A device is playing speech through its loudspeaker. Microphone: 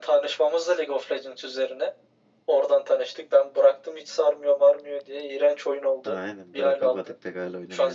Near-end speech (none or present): present